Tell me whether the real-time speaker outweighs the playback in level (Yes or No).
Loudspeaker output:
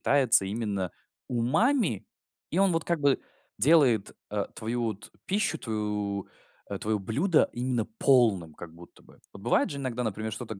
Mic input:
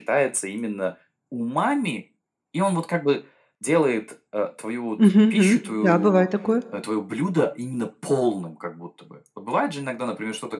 Yes